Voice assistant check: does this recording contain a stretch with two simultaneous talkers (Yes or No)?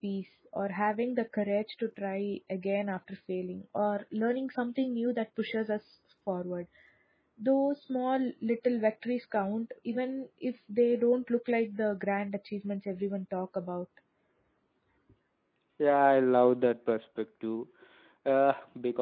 No